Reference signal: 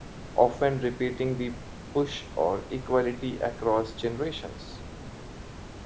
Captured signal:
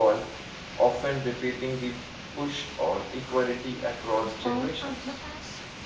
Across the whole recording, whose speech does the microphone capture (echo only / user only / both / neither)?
both